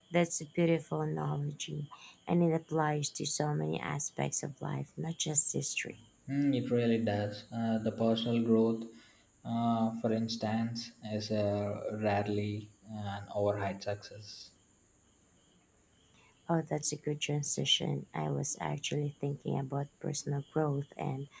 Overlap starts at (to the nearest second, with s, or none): none